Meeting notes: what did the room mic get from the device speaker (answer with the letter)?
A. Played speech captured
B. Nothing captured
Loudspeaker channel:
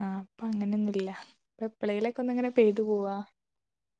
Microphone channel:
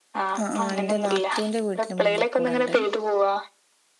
A